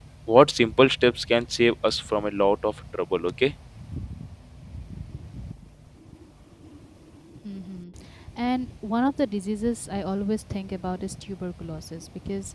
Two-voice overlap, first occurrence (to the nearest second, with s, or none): none